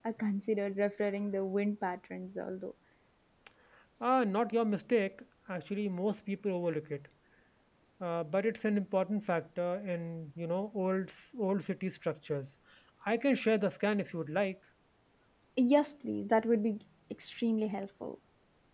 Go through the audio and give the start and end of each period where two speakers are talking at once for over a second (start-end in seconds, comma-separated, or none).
none